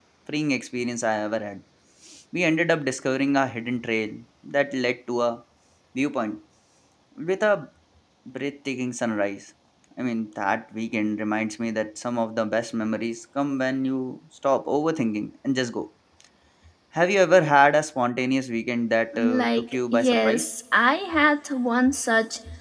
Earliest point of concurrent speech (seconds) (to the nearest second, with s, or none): 19 s